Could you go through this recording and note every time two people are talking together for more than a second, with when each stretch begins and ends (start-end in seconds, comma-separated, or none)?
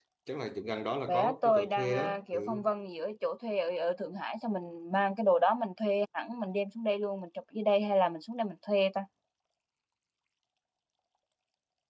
1.1-2.6